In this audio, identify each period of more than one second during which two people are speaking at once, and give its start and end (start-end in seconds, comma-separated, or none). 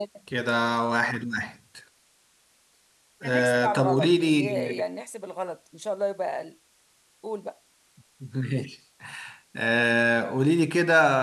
3.2-4.8